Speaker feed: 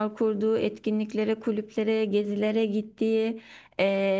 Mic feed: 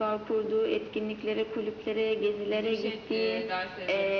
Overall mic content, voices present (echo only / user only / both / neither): both